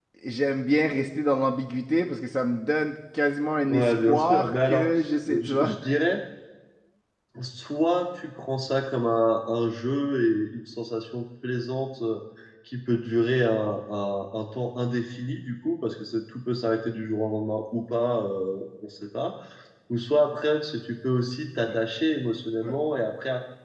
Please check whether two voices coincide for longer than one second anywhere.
Yes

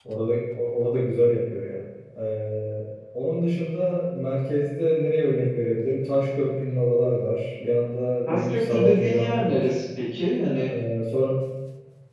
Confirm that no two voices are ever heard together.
No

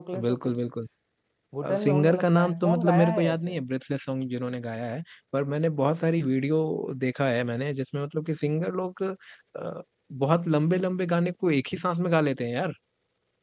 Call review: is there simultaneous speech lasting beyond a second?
Yes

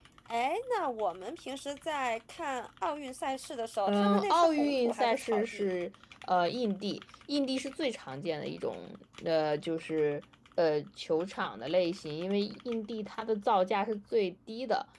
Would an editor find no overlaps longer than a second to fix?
No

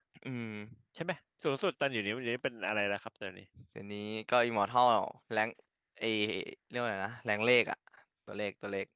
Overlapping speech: No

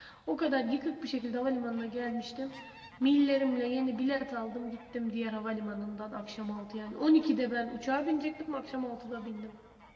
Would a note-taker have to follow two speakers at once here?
No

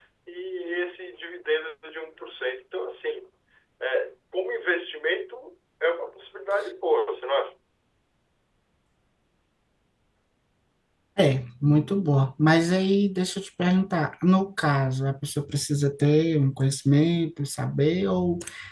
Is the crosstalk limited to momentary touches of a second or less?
Yes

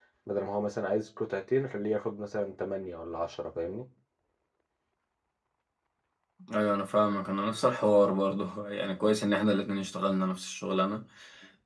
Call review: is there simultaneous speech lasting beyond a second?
No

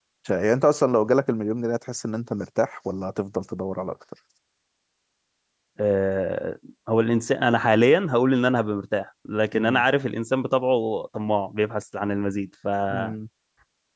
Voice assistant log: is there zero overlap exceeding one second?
Yes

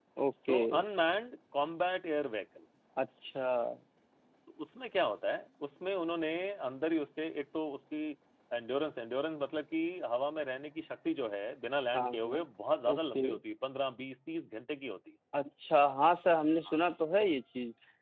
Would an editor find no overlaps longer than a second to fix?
Yes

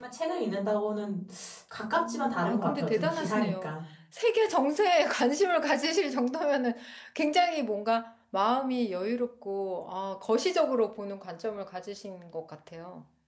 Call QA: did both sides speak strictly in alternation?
No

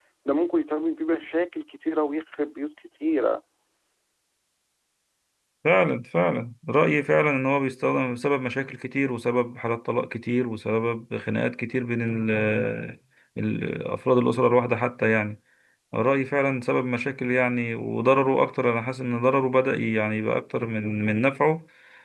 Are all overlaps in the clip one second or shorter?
Yes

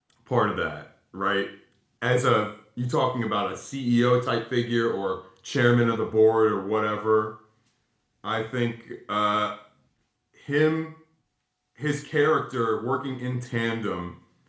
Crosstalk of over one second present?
No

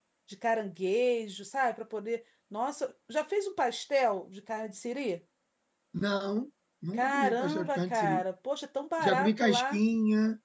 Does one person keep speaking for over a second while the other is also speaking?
Yes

